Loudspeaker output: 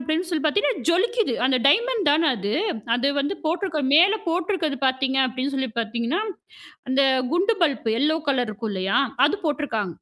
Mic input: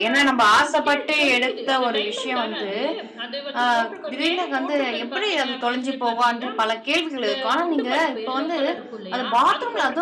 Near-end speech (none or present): present